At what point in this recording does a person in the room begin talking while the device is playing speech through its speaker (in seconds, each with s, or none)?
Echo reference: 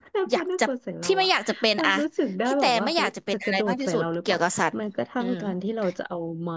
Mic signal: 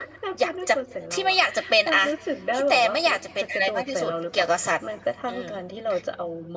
none